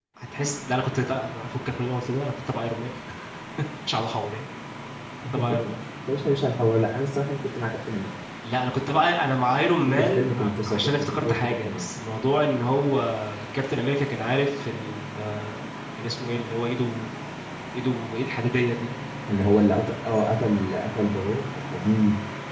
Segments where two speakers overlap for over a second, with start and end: 9.9-11.8

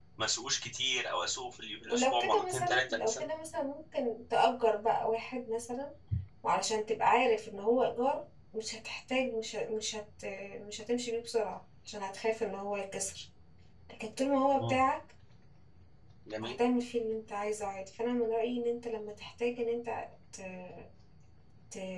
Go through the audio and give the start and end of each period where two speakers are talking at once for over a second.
1.9-3.3

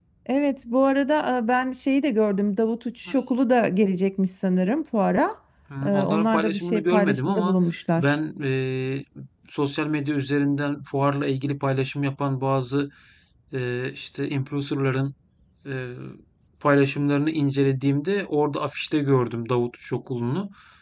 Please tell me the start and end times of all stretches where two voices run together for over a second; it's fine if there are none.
5.8-7.6

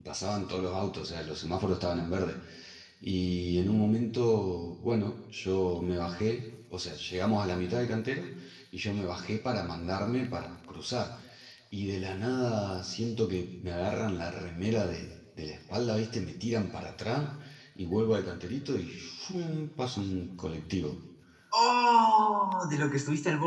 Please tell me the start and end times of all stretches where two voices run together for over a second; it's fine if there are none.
none

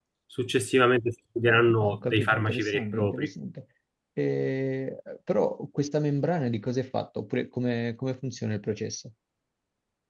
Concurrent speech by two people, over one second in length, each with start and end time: 1.8-3.3

